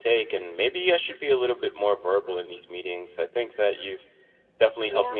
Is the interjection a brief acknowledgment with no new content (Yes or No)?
Yes